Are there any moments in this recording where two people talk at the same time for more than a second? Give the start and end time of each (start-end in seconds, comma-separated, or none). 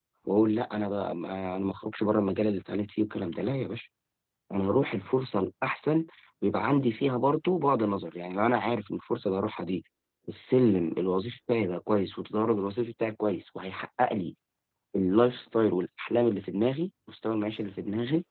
none